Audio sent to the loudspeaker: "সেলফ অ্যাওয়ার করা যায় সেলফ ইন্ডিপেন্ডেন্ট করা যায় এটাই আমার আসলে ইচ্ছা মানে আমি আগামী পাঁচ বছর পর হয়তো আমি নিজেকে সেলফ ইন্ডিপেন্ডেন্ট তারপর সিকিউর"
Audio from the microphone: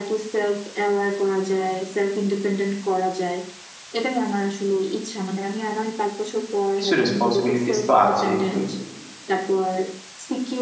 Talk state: both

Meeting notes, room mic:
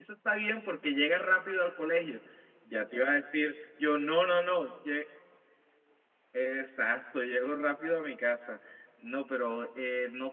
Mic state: user only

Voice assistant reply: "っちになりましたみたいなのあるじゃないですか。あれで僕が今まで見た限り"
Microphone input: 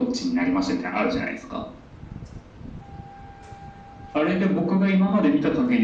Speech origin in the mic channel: echo only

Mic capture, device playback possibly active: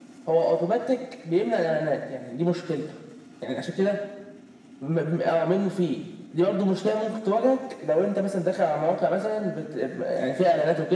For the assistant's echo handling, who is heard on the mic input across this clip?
echo only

